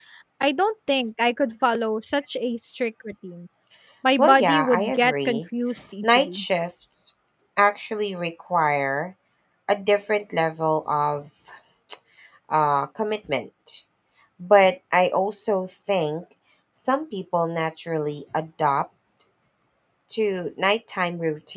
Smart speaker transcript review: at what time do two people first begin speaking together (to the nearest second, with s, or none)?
4 s